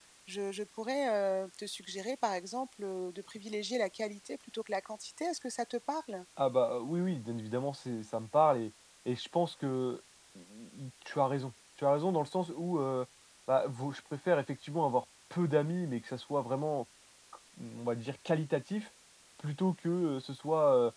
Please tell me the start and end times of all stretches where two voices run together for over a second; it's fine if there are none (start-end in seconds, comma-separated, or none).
none